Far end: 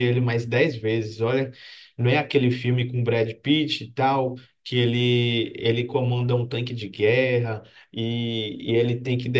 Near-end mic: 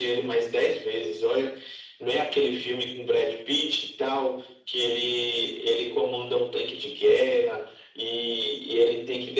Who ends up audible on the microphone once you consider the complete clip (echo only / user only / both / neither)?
echo only